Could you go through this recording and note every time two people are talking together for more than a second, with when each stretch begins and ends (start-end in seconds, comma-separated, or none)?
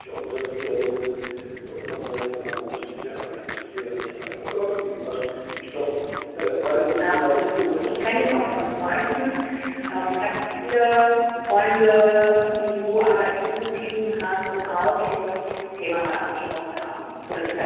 7.0-9.0